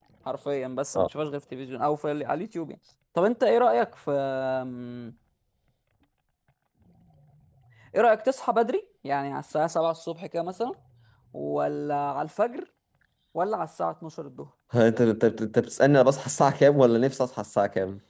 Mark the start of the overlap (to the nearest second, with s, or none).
none